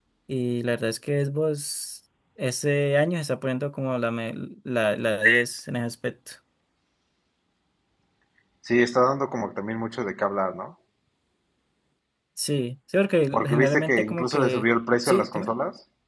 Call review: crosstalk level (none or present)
present